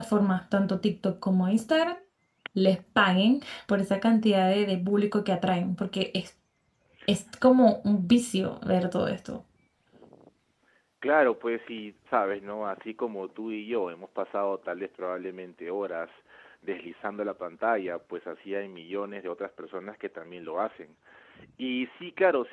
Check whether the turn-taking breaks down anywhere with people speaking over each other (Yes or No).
No